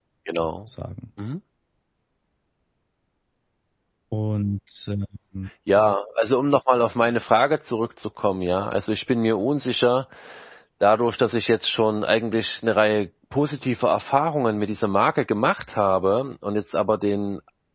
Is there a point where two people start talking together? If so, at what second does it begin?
none

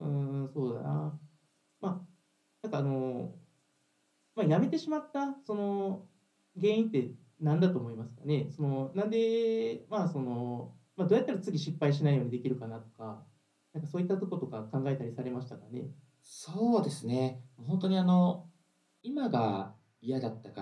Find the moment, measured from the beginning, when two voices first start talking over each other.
none

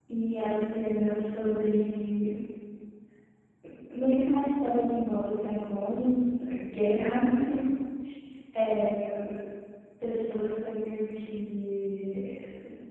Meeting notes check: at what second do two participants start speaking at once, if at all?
none

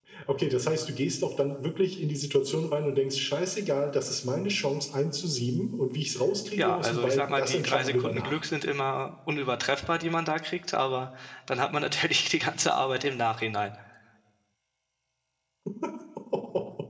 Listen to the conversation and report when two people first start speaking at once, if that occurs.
7 s

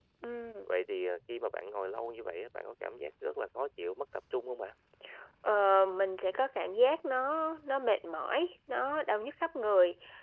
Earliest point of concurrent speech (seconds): none

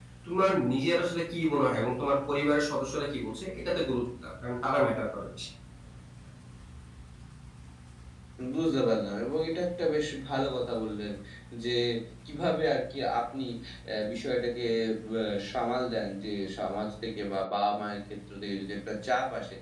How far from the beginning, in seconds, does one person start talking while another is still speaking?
none

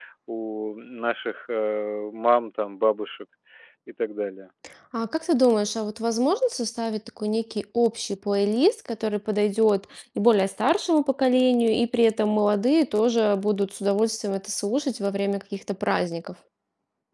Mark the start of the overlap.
none

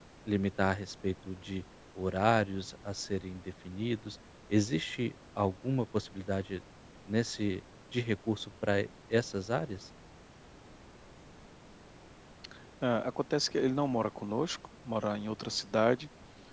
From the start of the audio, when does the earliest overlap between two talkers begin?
none

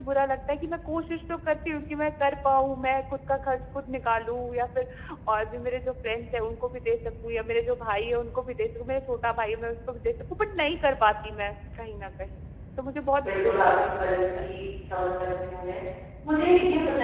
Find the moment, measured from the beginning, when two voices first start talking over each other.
13 s

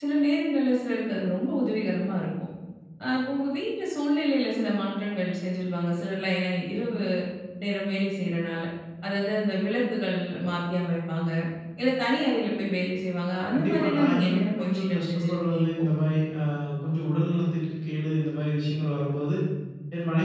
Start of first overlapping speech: 14 s

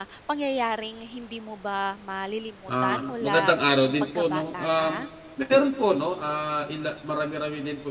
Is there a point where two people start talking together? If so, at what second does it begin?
3 s

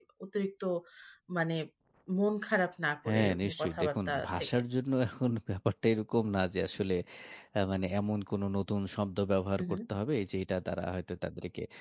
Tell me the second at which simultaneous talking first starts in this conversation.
3 s

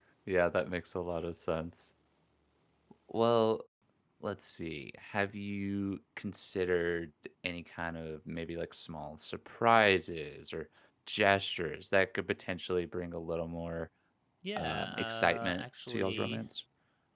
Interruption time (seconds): 15 s

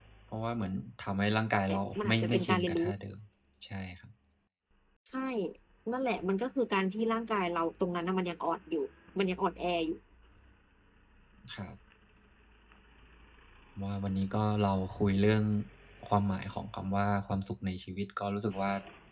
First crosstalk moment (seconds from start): 2 s

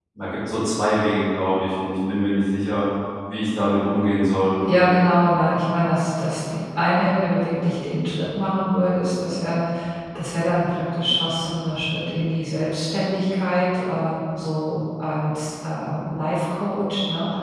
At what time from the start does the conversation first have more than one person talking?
none

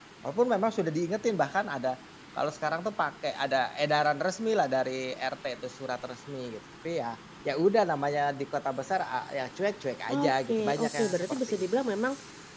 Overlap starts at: 10 s

